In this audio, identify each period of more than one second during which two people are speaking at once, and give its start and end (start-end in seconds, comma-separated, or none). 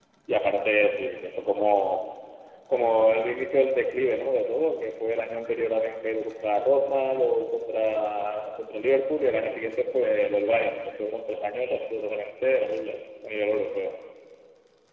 none